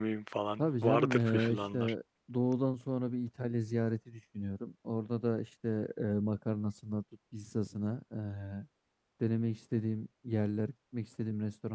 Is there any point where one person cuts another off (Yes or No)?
Yes